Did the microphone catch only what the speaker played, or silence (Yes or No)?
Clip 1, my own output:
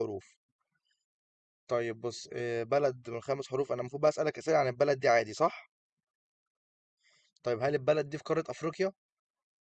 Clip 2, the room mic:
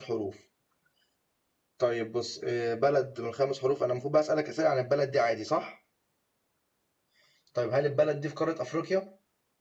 Yes